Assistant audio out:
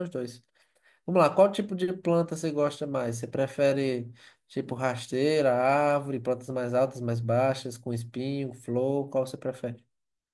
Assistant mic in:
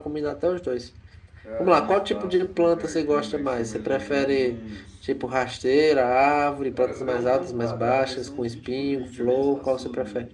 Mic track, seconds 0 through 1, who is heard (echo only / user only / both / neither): echo only